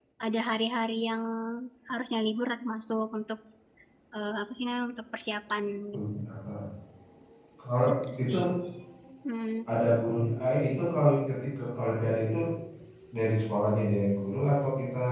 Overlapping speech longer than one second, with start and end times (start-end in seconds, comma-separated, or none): none